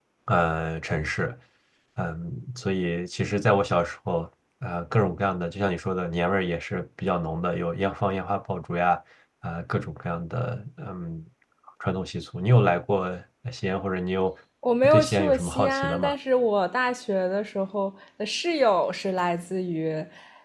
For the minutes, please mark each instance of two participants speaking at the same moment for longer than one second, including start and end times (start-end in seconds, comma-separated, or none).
14.8-16.1